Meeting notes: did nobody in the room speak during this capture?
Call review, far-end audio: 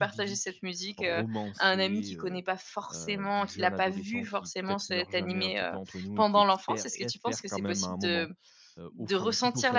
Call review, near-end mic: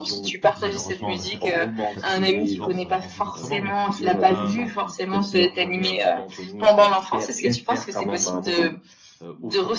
No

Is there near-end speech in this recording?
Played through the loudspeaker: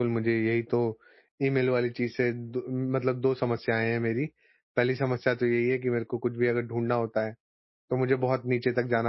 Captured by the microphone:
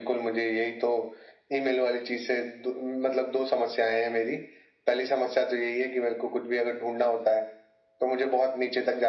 No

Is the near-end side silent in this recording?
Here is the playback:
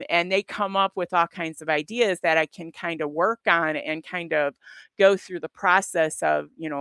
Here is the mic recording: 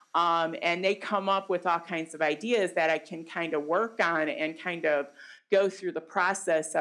Yes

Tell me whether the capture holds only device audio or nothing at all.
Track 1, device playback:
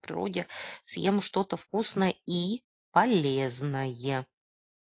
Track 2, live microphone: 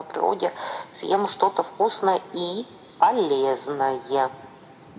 Yes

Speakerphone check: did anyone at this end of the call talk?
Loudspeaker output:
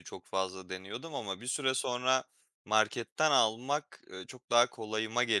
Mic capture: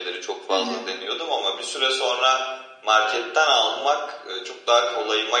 Yes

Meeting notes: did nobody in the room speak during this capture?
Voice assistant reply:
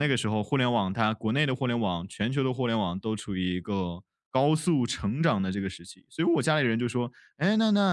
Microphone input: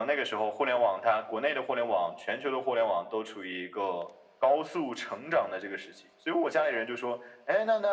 Yes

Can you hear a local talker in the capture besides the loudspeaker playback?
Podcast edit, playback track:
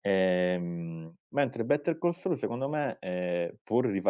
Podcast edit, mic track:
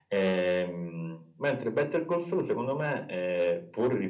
No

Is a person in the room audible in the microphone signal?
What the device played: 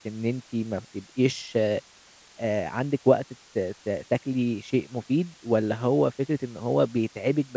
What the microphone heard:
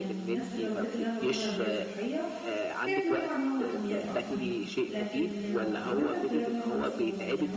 Yes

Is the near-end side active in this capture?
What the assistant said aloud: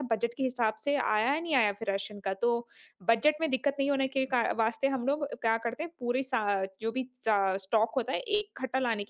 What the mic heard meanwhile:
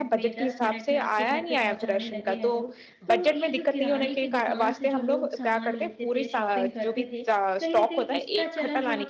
Yes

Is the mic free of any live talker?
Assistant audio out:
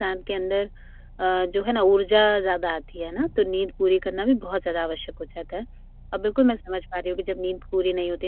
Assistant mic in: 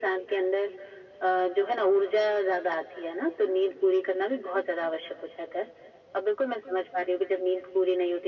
Yes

